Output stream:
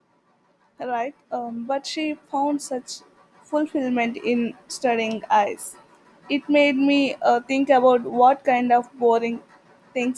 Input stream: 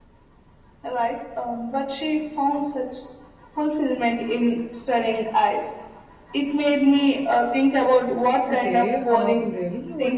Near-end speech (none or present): present